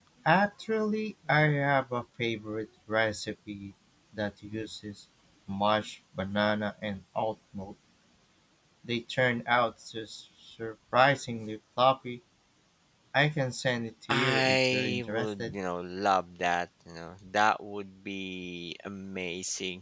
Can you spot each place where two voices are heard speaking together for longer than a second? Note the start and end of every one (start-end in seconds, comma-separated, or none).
14.1-15.5